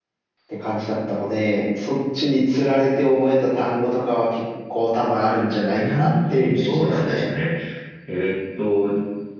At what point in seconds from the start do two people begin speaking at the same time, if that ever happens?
5.7 s

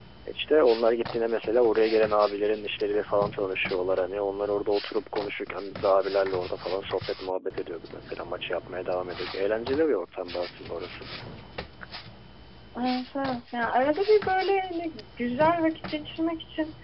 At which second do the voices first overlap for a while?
none

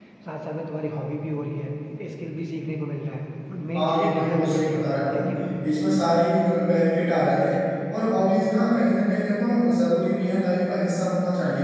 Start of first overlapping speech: 3.7 s

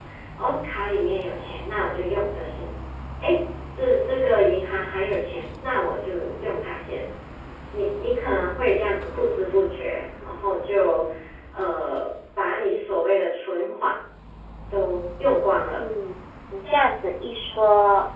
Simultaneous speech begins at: none

